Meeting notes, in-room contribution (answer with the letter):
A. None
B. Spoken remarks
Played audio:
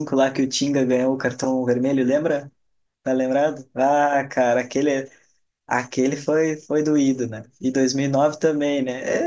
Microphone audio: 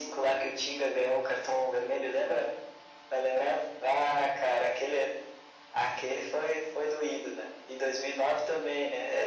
A